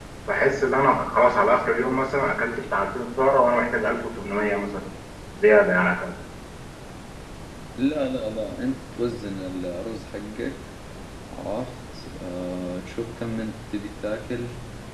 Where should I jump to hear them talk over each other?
none

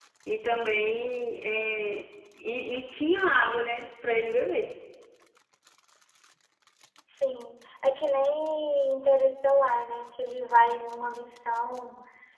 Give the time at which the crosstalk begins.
none

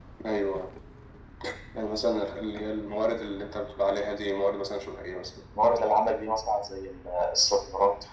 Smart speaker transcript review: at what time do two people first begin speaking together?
none

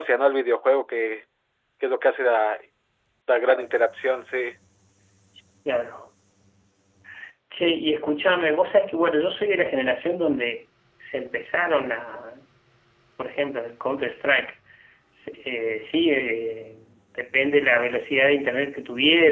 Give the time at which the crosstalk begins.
none

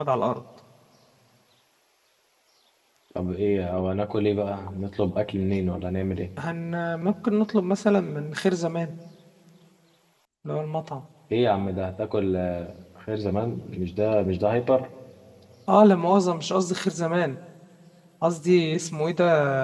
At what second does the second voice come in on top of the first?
none

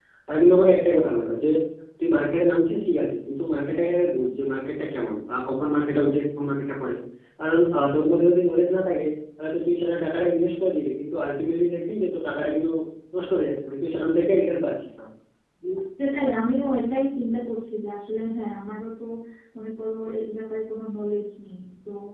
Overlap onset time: none

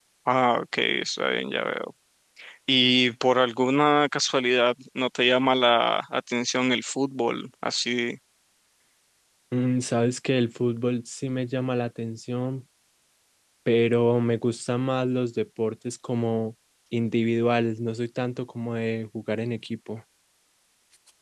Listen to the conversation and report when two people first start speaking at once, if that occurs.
none

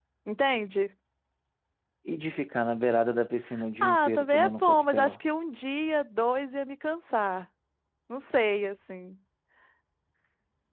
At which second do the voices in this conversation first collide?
3.8 s

